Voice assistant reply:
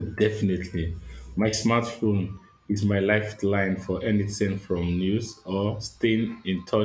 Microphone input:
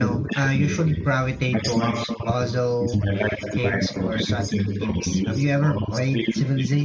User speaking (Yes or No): Yes